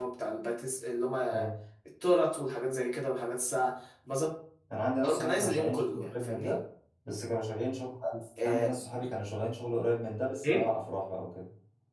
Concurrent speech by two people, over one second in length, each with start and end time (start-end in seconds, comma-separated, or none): 5.0-6.6